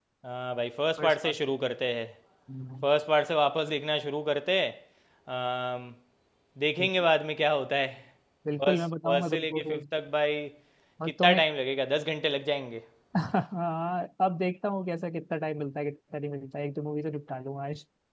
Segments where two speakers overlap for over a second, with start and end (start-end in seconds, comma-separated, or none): 8.6-9.8